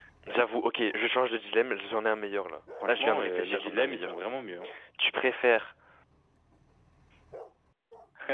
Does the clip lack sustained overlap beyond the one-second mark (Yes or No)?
No